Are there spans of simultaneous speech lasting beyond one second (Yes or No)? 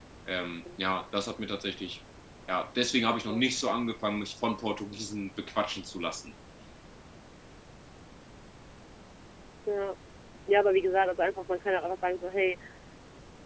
No